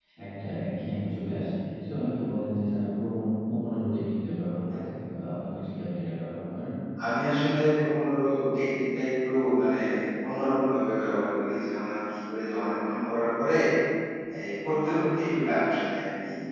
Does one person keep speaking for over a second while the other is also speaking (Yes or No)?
No